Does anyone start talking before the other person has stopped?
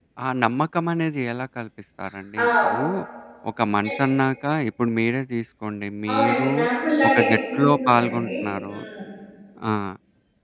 Yes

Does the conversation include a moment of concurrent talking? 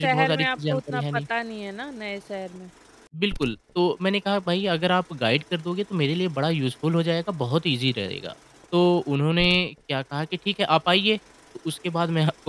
Yes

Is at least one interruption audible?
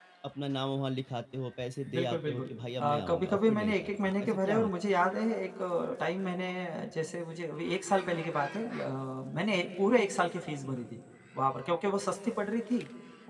Yes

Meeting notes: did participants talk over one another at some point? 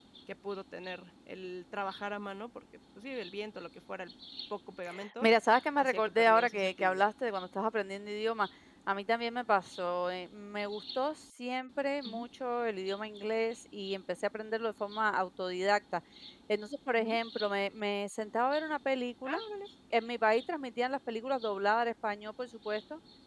Yes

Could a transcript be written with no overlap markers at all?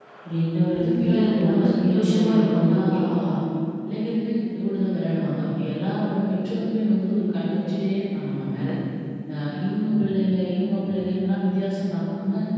No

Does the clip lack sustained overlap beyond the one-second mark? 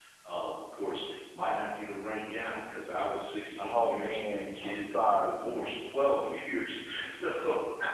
No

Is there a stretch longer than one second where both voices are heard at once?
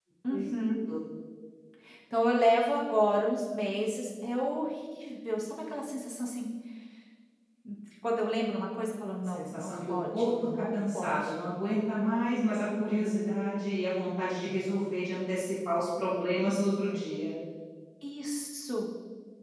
Yes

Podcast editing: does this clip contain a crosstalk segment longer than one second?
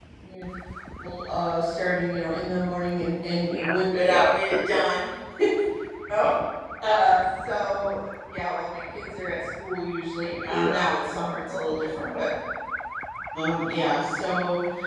Yes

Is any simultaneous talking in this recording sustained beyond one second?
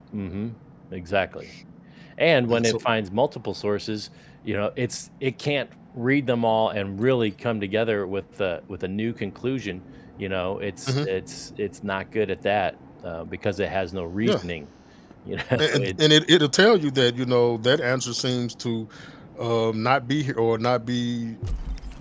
No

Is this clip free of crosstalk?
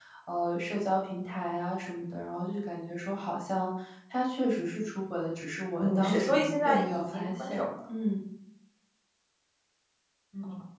No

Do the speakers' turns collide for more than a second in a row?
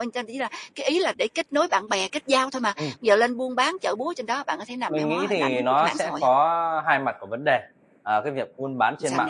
Yes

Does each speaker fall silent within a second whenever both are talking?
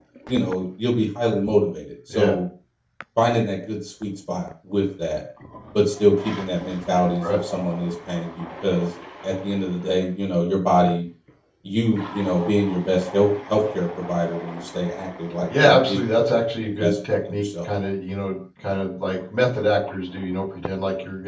No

